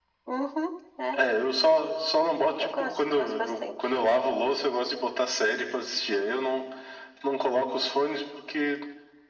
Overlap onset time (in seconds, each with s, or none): 2.6 s